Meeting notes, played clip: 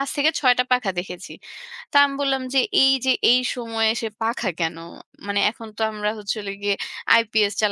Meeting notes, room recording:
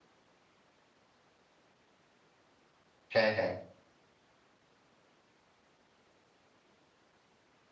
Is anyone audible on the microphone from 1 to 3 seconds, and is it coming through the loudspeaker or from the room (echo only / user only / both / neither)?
neither